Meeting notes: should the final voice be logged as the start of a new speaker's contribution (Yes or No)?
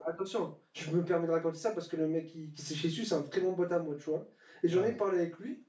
No